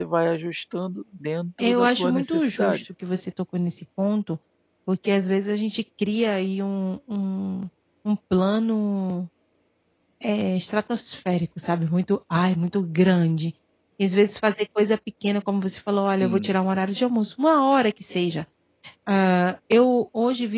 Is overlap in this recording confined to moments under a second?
No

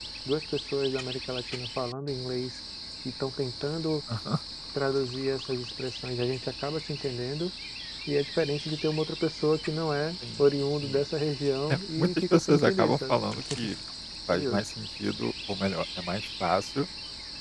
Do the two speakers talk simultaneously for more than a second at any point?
Yes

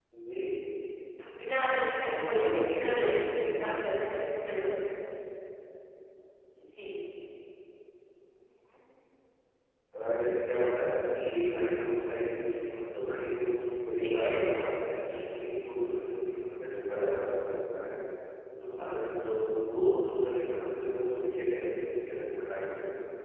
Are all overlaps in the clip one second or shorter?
No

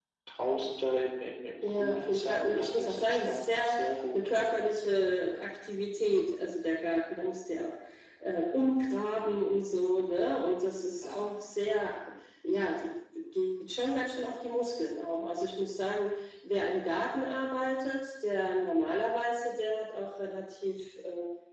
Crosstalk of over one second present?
Yes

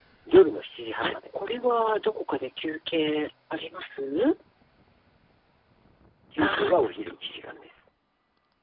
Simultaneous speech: Yes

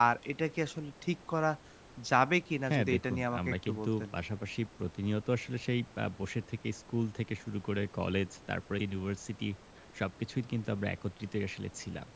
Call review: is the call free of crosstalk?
No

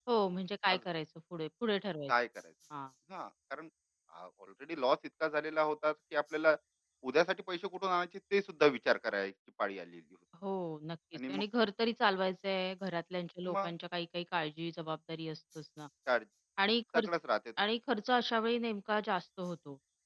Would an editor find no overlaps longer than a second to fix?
Yes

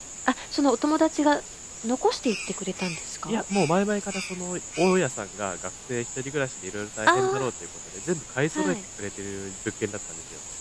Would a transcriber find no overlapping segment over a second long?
Yes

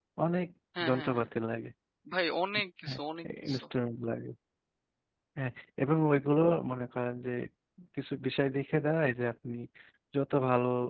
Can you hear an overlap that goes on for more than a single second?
No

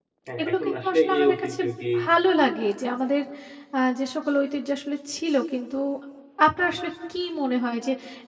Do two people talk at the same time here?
Yes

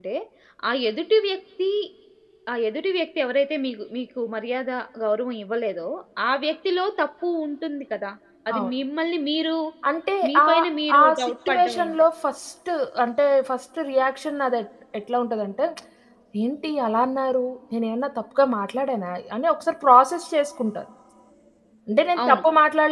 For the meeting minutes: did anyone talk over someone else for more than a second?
Yes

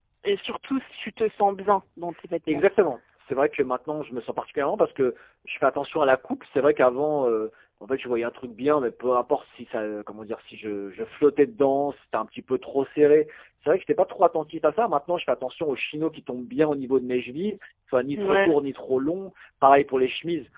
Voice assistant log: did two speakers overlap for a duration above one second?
No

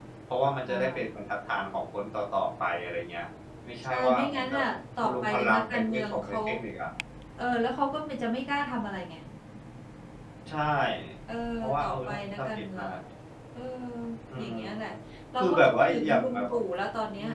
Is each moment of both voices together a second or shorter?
No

